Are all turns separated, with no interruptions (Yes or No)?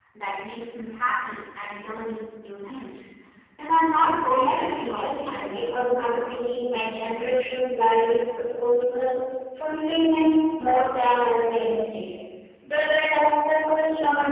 No